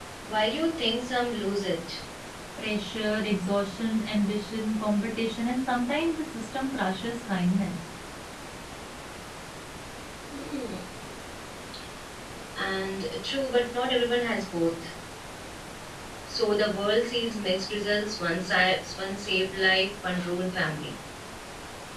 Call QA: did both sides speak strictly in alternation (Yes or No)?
Yes